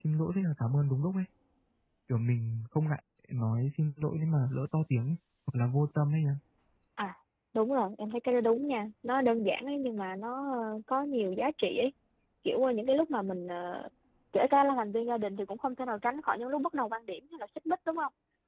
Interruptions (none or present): none